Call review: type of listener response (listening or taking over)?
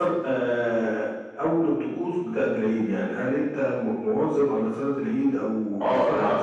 taking over